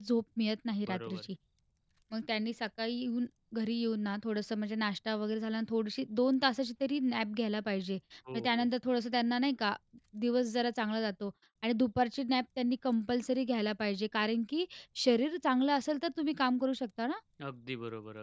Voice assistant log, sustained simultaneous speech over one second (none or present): none